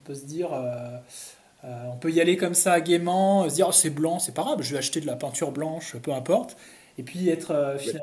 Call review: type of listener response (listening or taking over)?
listening